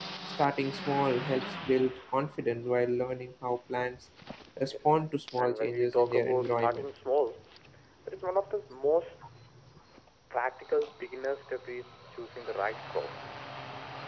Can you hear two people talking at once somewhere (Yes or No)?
Yes